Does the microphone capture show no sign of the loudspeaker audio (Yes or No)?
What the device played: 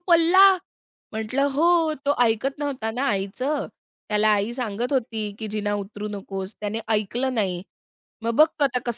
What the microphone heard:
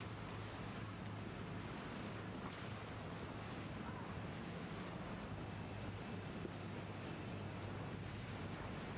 Yes